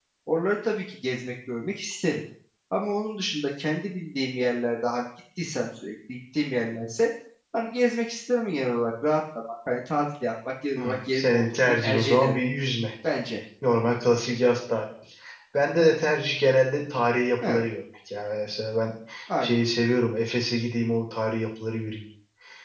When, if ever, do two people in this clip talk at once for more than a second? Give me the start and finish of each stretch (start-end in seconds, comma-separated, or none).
10.8-12.3